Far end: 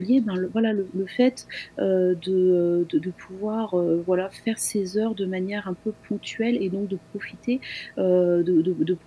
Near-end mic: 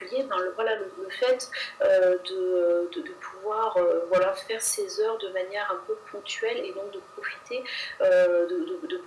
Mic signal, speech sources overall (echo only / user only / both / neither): echo only